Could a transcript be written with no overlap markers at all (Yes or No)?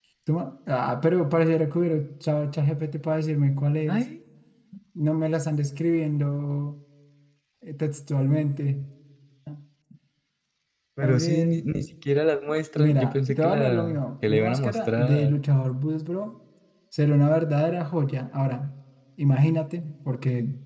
No